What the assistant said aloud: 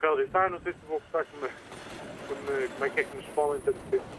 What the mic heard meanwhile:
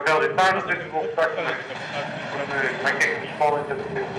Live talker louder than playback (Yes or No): No